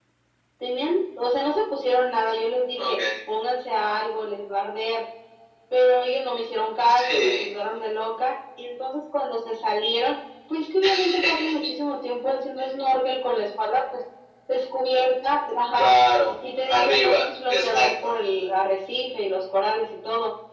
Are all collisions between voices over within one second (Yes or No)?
No